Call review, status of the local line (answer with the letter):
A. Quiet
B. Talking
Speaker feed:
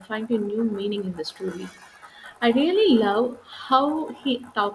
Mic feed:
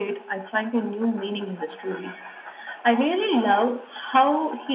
A